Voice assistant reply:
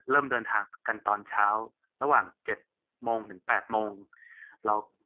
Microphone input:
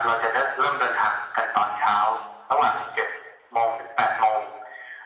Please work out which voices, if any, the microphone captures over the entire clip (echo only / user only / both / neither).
echo only